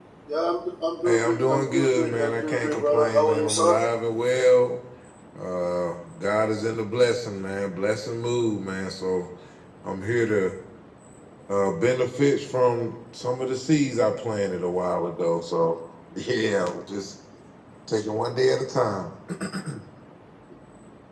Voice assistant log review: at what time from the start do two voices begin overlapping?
1.0 s

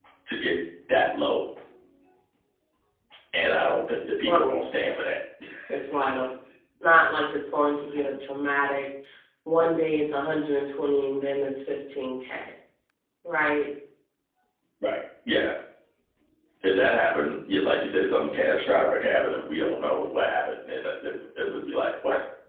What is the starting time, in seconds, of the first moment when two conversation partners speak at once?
none

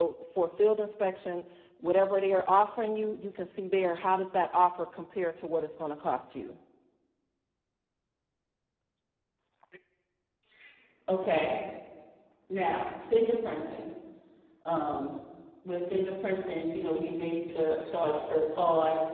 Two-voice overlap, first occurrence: none

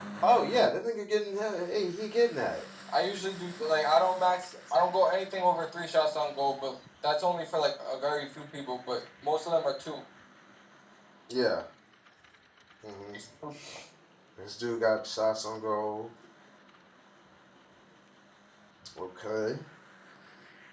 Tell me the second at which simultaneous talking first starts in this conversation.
none

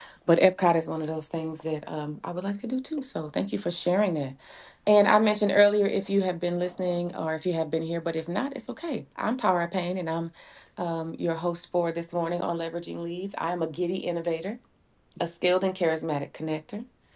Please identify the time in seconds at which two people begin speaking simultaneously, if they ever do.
none

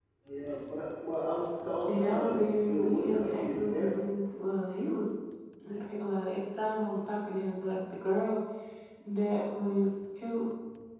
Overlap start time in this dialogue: 1.8 s

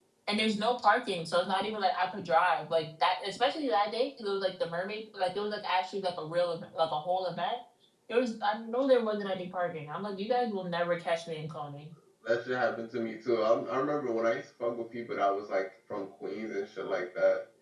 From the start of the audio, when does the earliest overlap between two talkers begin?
none

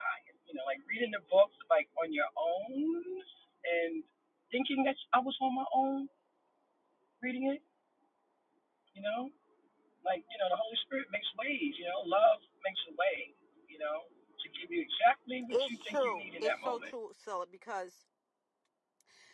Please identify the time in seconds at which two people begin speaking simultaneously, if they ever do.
15.5 s

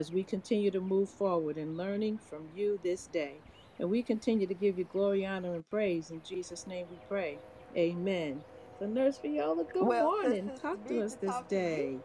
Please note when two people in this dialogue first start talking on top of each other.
9.8 s

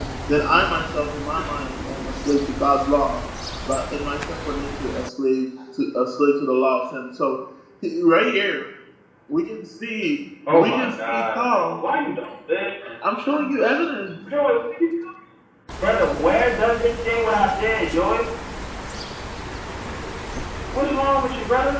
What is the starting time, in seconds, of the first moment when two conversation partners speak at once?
10.5 s

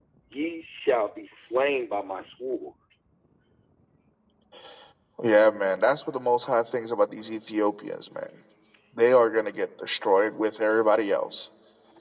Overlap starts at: none

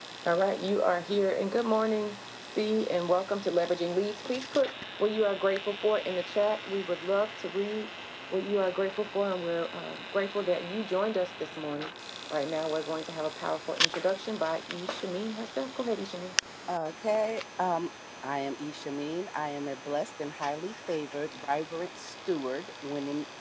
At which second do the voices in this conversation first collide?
none

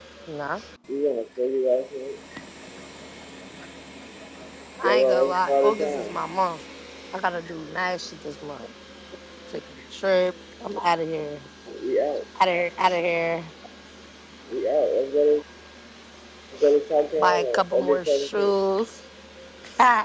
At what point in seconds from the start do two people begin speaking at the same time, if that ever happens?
4.8 s

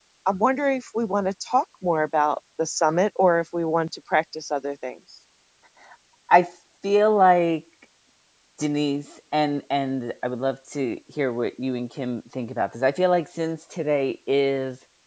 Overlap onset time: none

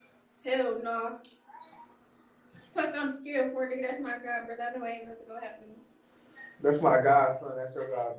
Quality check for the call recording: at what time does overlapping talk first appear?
none

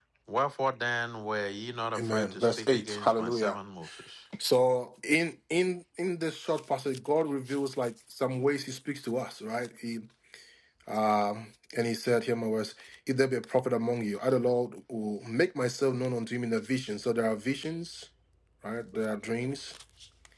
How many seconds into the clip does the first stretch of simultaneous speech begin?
2.0 s

